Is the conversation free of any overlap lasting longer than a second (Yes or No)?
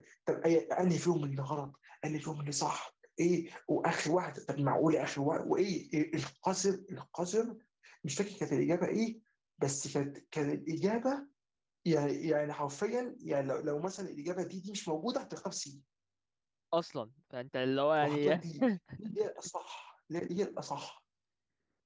Yes